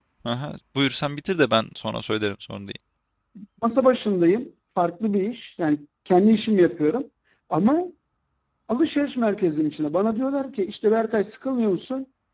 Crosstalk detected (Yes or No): No